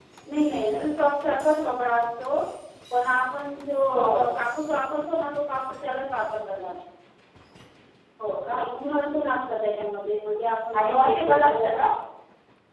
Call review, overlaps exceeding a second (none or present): present